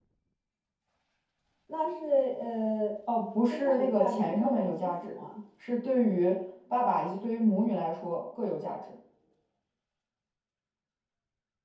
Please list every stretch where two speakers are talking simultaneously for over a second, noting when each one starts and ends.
3.5-5.2

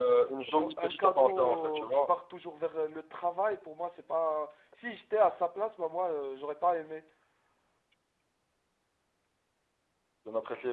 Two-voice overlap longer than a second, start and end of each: 0.8-2.1

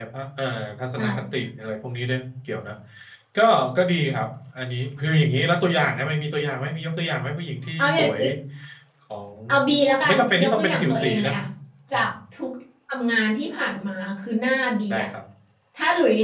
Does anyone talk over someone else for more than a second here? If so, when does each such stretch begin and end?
10.1-11.3

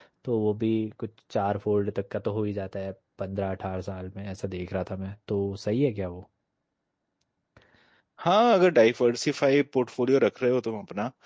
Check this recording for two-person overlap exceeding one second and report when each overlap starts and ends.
none

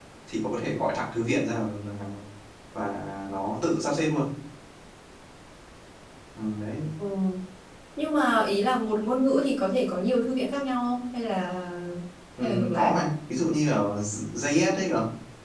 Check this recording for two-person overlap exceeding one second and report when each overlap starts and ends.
none

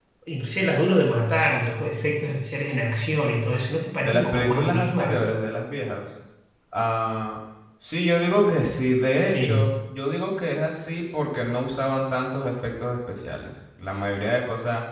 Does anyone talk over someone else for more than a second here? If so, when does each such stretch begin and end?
4.0-5.2

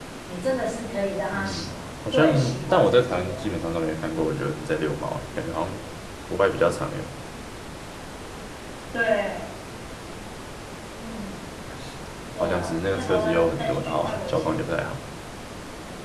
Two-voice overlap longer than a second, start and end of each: 2.1-3.4, 12.4-14.7

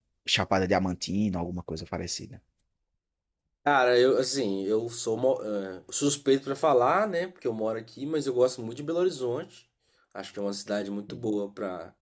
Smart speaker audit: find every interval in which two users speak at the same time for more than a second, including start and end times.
none

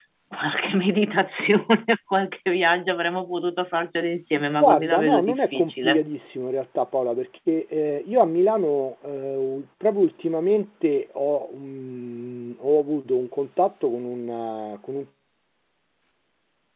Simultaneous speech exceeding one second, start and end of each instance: 4.6-6.0

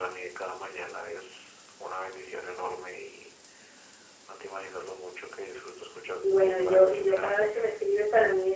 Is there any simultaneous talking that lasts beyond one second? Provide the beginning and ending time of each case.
6.2-7.6

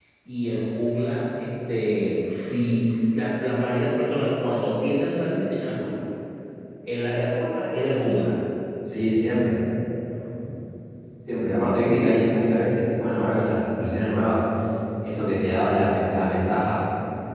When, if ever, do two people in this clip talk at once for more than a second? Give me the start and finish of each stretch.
none

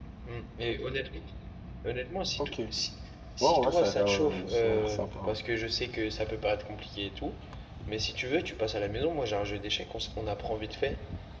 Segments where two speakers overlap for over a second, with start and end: 3.4-5.4

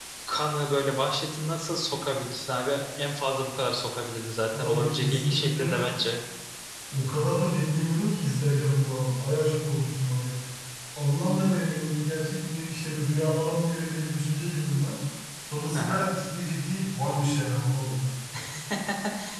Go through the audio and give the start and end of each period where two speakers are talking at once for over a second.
4.5-5.7

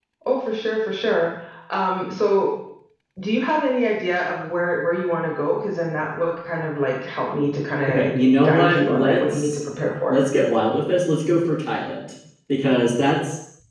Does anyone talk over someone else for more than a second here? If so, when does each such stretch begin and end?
7.9-9.6

